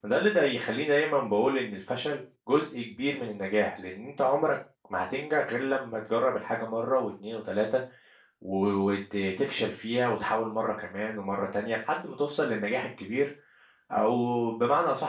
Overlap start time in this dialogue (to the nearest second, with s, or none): none